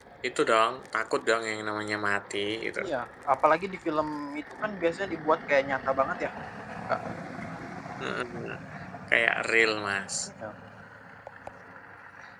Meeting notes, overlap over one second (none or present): none